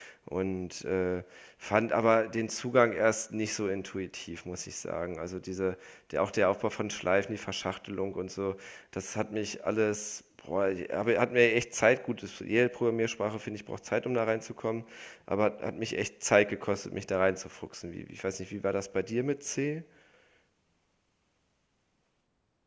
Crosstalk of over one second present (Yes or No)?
No